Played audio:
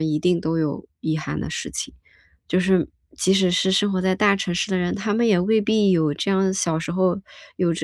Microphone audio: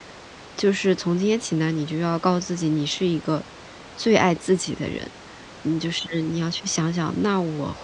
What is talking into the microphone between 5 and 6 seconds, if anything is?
user only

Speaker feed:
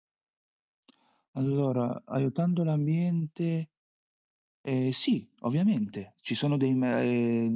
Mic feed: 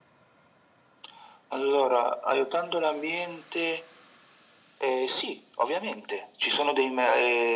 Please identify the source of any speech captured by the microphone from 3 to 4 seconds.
echo only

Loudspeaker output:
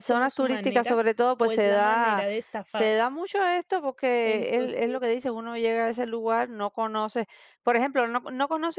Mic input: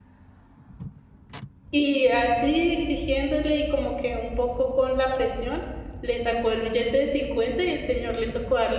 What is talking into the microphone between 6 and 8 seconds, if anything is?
user only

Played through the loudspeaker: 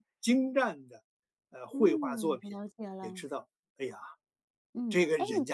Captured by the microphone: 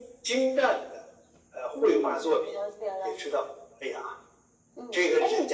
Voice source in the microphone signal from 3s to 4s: echo only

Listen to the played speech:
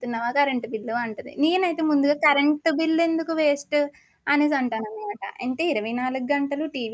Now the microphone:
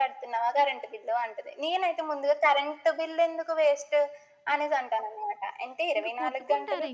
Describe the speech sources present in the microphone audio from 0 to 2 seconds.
echo only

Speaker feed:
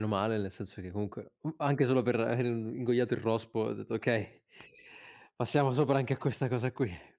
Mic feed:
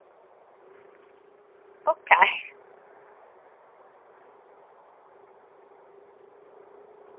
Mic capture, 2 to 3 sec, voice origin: user only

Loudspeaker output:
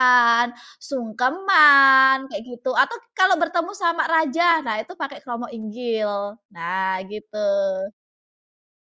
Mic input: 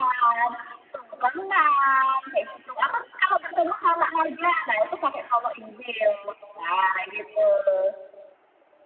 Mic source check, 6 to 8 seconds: echo only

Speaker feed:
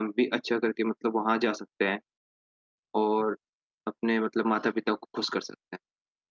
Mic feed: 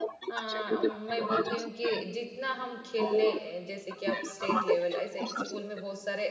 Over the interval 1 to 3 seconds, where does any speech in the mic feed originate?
both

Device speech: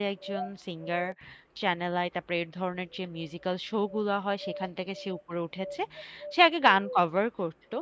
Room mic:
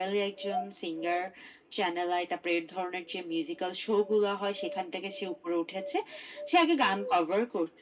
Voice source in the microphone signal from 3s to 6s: echo only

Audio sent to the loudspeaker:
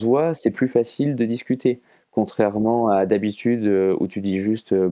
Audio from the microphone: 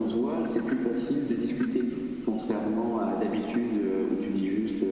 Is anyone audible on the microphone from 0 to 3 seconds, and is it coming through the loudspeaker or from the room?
echo only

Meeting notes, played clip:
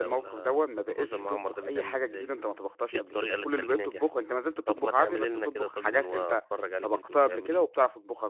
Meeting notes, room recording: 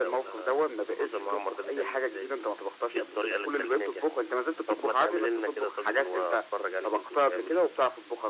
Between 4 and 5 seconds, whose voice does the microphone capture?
echo only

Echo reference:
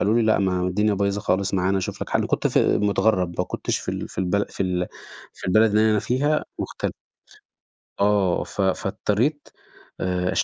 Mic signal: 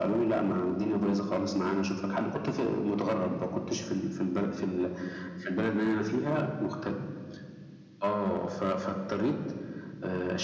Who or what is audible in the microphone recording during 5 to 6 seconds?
echo only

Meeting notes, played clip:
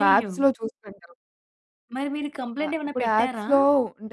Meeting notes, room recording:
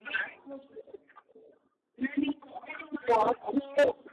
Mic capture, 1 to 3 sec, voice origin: echo only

